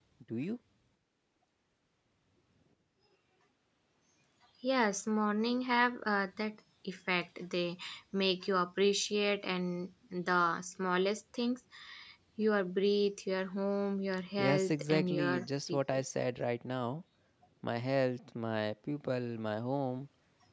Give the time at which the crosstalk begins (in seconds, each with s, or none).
14.4 s